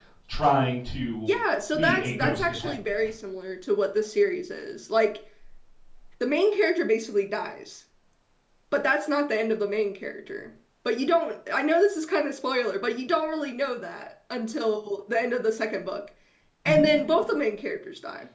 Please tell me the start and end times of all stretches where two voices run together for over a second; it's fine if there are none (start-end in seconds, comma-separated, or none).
1.7-3.1